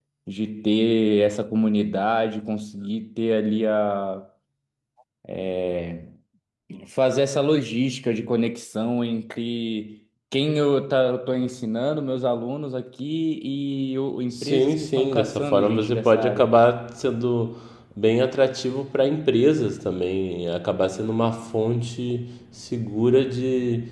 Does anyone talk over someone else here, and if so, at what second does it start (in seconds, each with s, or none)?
14.3 s